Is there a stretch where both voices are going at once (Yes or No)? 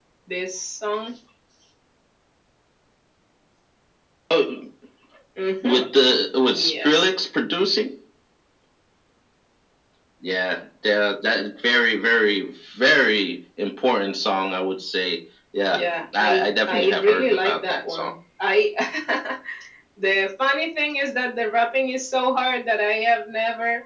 Yes